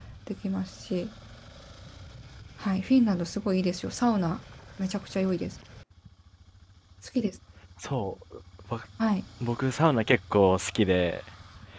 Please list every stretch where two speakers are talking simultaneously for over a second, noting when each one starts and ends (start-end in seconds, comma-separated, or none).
none